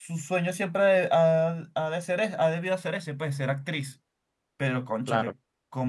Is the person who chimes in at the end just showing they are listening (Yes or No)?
Yes